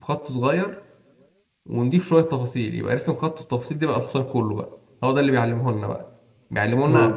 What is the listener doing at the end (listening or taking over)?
listening